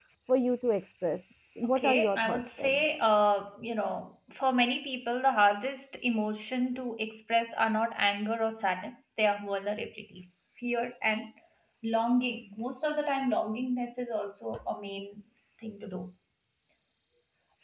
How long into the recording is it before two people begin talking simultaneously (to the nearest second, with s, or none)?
2 s